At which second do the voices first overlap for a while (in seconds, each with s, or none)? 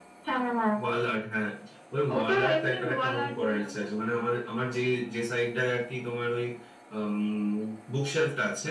2.2 s